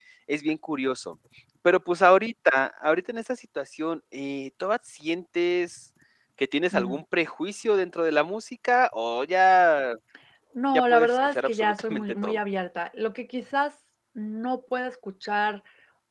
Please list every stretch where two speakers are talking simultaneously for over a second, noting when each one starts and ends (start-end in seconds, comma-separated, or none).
10.7-12.4